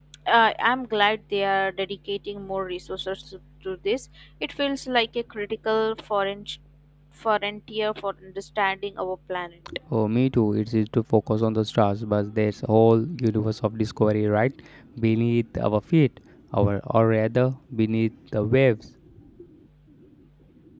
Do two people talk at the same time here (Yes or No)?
No